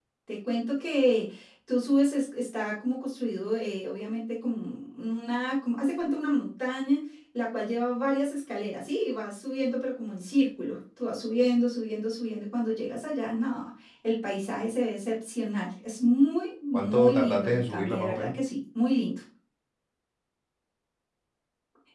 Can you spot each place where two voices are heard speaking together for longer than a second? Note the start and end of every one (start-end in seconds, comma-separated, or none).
16.7-18.4